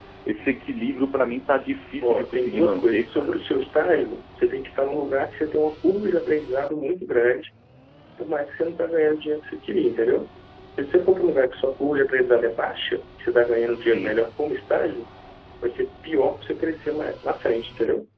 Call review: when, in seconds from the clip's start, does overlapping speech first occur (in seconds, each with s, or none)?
2.0 s